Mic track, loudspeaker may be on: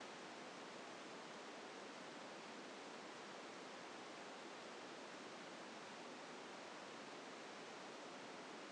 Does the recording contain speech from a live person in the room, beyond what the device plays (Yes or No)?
No